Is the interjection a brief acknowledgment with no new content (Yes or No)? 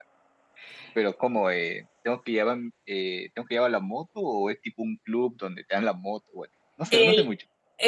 No